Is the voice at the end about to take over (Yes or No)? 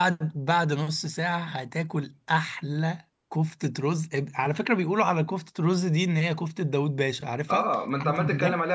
Yes